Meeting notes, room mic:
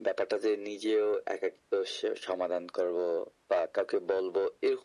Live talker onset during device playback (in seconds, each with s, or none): none